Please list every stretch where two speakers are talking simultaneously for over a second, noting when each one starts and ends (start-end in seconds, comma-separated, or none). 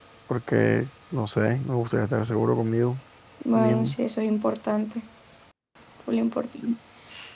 none